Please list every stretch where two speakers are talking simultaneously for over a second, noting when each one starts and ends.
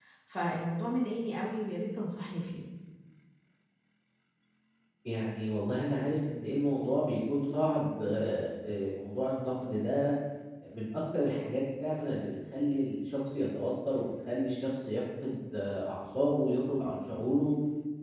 none

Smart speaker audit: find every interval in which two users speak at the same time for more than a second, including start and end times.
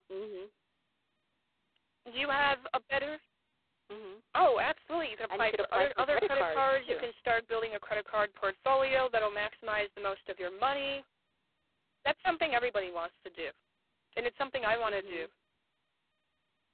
5.3-7.1

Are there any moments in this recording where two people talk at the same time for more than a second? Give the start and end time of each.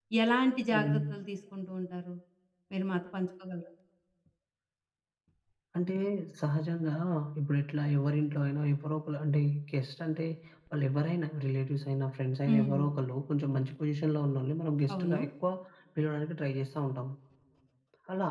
none

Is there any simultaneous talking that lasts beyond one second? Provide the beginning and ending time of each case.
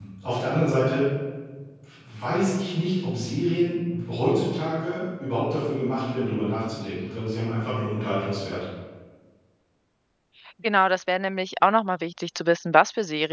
none

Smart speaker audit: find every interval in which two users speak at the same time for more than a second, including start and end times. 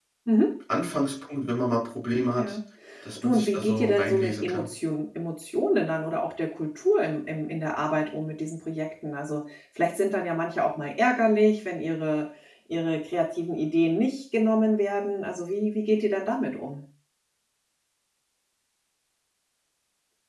3.2-4.7

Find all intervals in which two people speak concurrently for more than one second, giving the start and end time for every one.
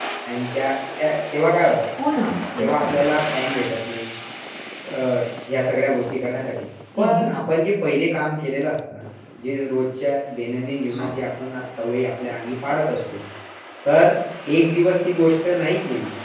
none

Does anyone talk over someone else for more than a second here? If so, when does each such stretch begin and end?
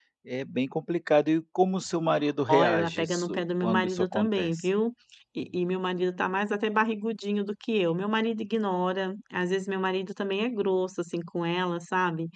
2.5-4.7

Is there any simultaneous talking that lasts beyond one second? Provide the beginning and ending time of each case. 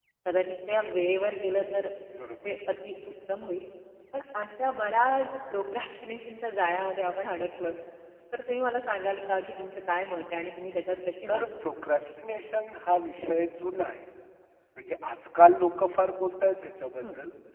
none

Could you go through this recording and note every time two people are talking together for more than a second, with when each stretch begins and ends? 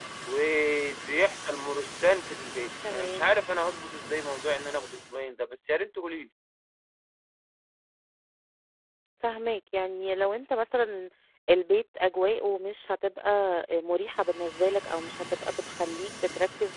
none

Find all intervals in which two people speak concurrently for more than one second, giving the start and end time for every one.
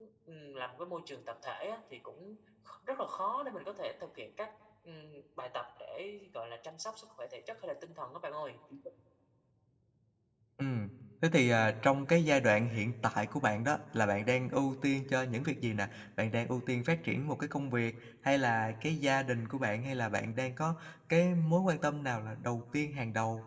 none

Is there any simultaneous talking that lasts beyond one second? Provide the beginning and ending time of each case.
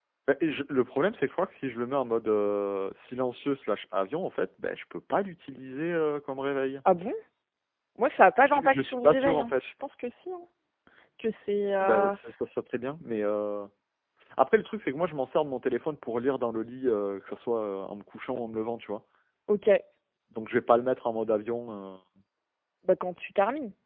8.4-9.7

